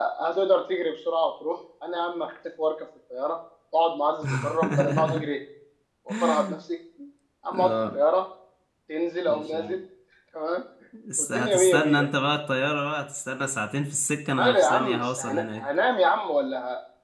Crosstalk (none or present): present